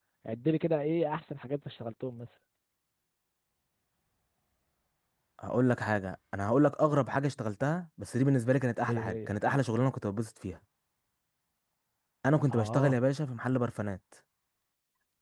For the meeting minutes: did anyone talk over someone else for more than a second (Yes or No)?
No